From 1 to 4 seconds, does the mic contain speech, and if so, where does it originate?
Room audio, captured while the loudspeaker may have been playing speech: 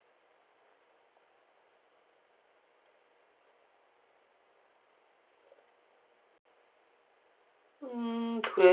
neither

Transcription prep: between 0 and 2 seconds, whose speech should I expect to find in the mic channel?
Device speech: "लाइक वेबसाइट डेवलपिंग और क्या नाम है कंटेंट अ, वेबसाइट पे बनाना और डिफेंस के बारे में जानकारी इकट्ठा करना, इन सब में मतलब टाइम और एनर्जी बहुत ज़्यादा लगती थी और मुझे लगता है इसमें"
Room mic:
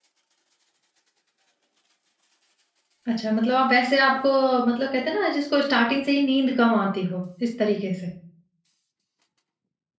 neither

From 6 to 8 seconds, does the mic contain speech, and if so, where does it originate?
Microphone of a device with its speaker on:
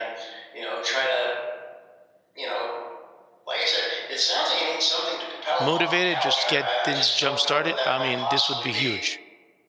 both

